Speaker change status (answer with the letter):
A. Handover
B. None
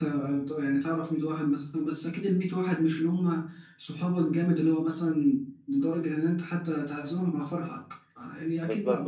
B